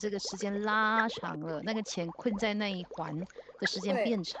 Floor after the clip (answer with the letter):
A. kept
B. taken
B